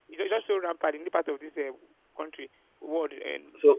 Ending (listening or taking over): taking over